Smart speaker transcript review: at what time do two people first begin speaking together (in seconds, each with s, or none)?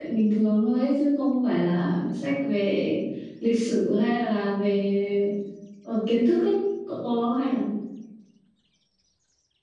none